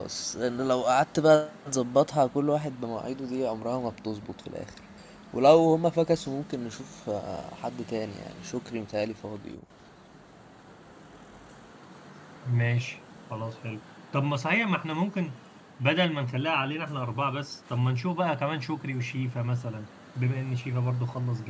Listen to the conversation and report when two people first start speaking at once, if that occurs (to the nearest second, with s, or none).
none